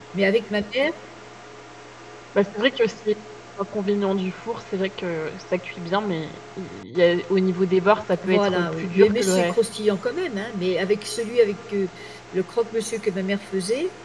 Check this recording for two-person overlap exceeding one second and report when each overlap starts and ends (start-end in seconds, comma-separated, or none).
8.3-9.5